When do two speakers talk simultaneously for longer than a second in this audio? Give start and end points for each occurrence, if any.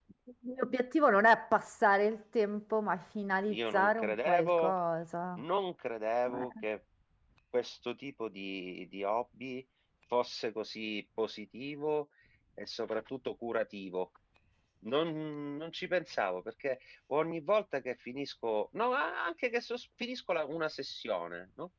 3.5-4.7

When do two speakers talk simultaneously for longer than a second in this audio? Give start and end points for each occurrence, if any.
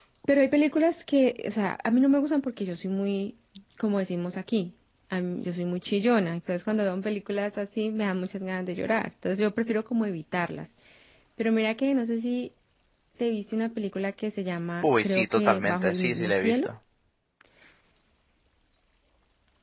14.8-16.7

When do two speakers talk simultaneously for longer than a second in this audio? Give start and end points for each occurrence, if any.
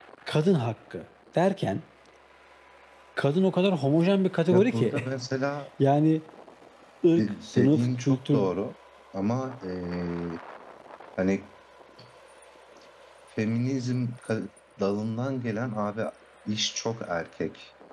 7.2-8.4

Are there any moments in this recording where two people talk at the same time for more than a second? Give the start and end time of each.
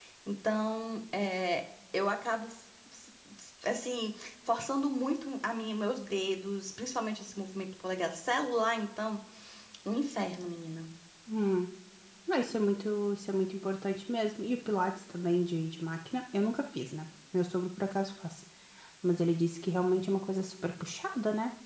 none

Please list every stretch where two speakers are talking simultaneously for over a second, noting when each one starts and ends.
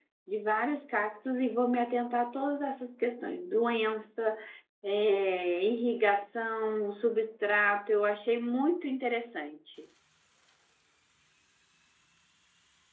none

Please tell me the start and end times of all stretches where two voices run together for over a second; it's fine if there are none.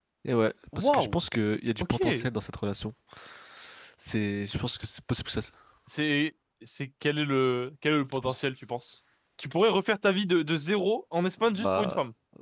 none

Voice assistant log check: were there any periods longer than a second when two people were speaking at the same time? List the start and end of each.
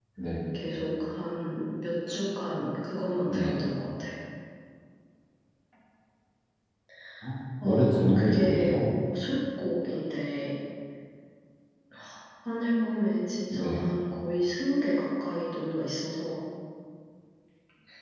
7.6-8.9

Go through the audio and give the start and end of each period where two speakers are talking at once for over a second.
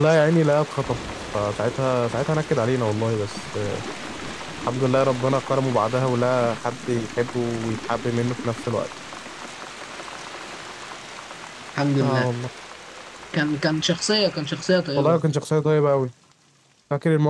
none

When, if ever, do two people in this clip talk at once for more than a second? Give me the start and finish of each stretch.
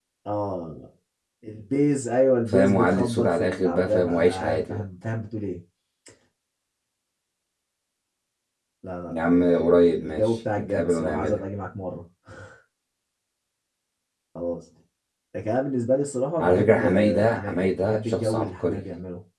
2.5-4.8, 9.1-11.4, 16.4-18.8

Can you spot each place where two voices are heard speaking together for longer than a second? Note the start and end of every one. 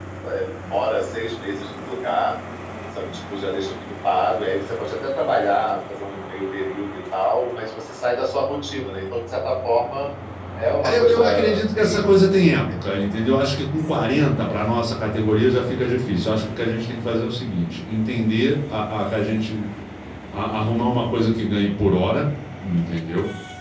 10.8-12.1

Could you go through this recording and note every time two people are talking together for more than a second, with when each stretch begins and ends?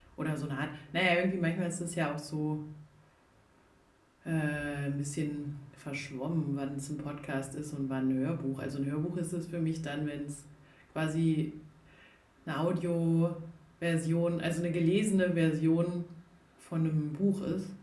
none

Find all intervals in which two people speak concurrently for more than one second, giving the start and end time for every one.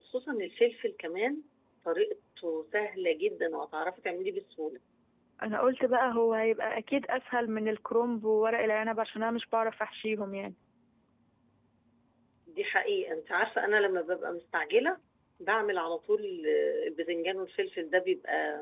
none

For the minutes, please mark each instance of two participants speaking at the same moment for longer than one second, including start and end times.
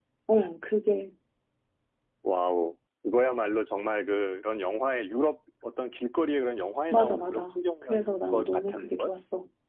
6.9-9.1

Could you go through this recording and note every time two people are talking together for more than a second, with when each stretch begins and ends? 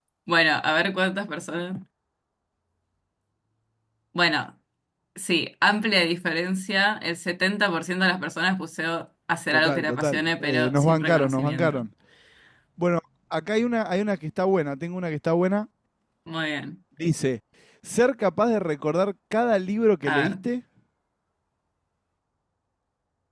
9.5-11.8

